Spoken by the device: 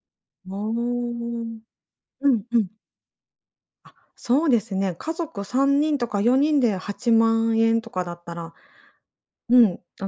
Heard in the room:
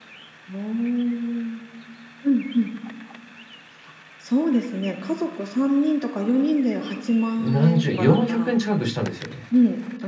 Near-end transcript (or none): 何十、400円近くしたんですよね。